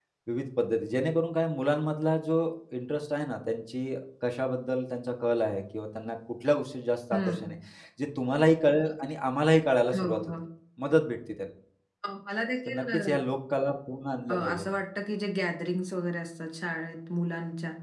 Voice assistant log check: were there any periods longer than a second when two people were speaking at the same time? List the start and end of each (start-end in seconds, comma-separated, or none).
none